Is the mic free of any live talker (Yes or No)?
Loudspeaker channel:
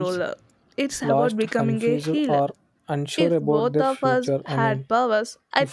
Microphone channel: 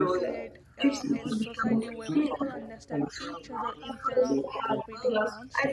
No